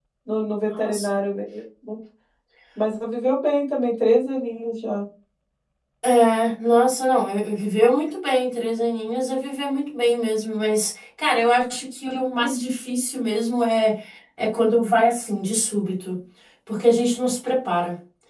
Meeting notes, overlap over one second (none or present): none